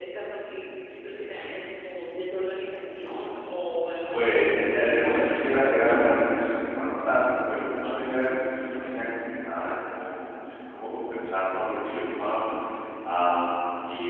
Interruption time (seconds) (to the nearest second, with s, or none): 4 s